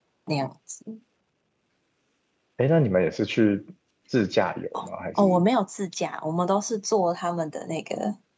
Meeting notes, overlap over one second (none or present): none